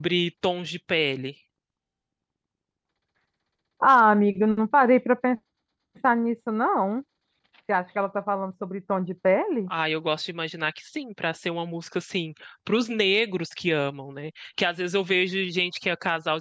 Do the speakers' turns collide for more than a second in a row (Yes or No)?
No